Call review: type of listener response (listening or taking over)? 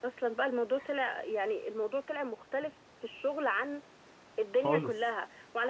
listening